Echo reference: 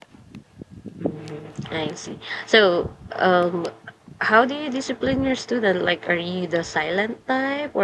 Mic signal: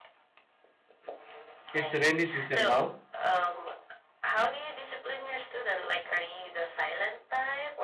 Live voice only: it's rainy season now.

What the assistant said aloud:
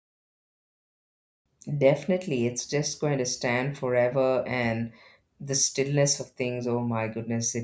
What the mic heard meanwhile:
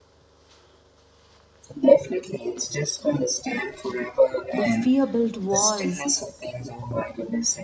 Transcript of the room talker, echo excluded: The fear built walls,

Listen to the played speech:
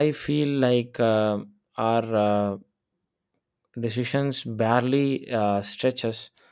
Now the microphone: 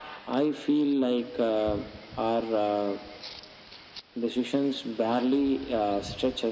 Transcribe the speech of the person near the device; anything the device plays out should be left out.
none

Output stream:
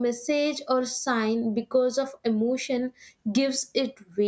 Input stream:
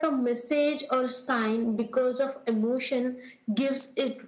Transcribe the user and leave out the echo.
none

